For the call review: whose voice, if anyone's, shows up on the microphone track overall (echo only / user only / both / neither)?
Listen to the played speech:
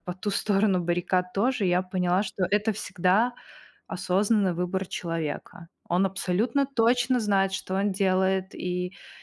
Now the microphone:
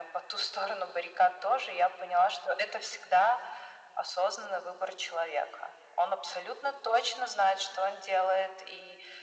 echo only